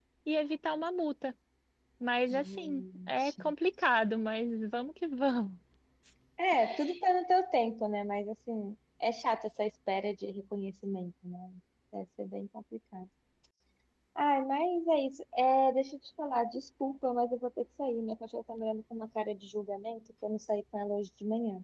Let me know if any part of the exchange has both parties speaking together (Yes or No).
Yes